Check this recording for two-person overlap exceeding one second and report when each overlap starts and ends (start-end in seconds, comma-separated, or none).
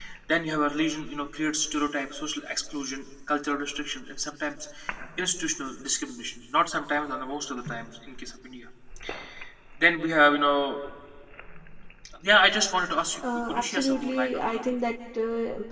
13.3-14.6